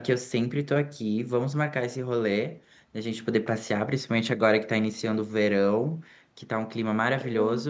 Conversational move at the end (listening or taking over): listening